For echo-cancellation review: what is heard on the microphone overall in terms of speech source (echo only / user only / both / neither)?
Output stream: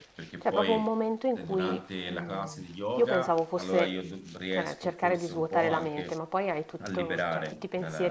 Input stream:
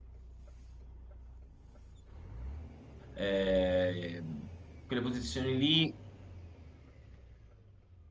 user only